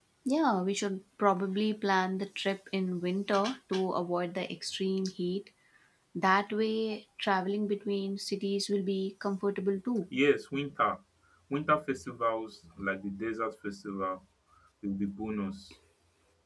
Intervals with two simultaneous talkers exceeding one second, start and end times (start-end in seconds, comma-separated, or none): none